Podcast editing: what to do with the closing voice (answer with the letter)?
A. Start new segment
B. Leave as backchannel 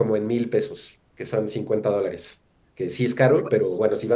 B